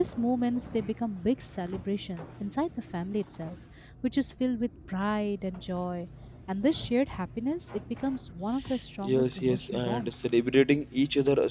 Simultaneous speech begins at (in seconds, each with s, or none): 9.0 s